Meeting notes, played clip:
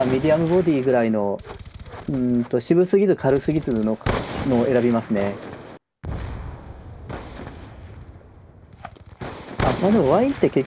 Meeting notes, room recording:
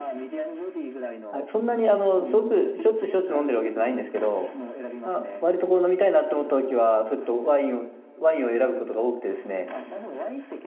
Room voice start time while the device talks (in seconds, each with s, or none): 1.3 s